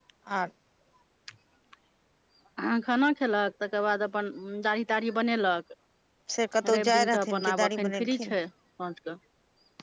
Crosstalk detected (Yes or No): Yes